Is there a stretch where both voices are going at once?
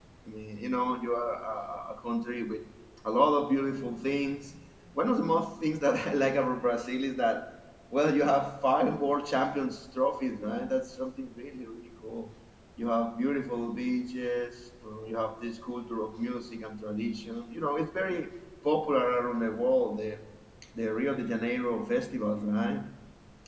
No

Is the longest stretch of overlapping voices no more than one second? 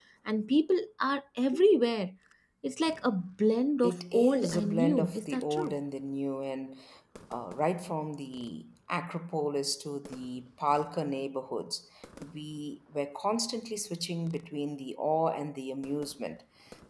No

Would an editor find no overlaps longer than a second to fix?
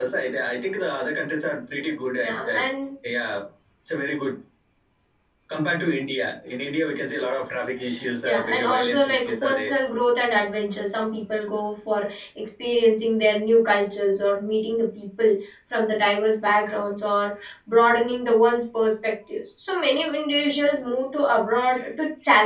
No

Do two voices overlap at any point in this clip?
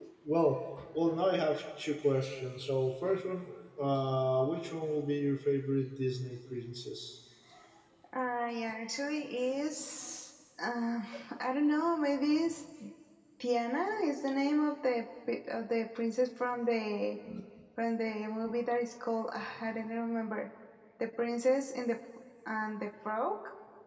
No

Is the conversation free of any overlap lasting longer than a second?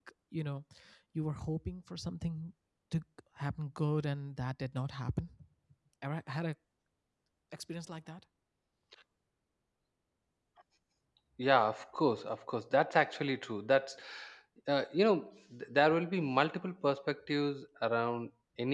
Yes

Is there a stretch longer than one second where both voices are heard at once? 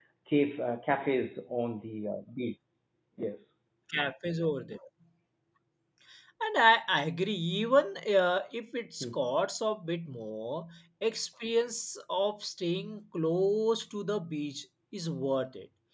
No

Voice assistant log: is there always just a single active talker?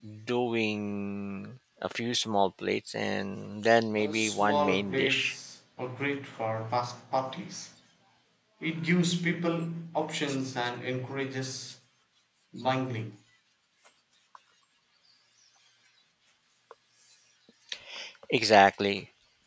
No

